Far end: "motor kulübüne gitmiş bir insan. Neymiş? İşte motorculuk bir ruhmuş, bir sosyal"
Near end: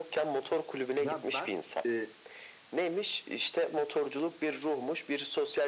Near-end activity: present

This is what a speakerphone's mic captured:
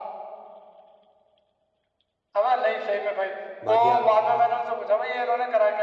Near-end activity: present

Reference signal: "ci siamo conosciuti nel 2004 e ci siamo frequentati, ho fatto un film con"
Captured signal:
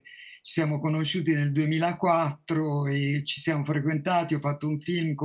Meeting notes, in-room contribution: none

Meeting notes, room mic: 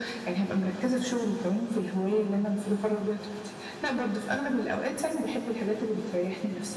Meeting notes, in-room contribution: none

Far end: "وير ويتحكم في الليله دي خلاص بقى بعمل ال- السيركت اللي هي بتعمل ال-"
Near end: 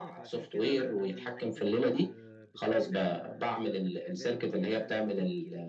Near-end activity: present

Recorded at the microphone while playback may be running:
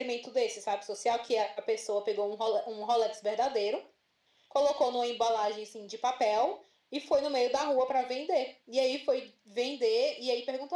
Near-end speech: none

